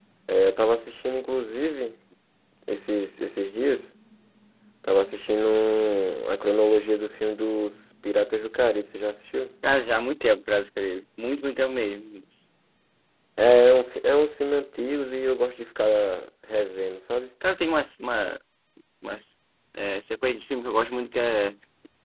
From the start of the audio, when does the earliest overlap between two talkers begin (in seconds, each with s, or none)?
none